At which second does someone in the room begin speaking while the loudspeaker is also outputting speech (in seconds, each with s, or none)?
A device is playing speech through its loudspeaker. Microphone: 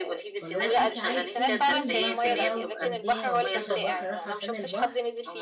0.4 s